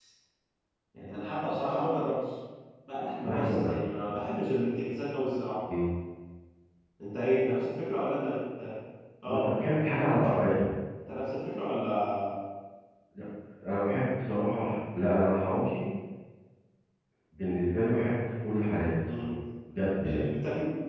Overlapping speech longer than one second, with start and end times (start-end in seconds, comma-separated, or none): none